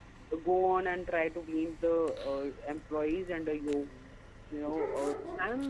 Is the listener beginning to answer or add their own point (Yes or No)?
Yes